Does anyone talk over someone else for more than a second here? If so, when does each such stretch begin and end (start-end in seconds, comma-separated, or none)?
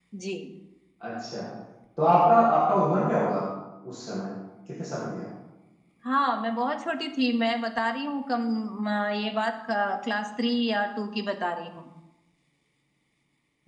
none